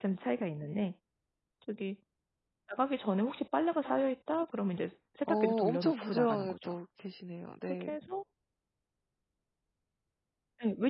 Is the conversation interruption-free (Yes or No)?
No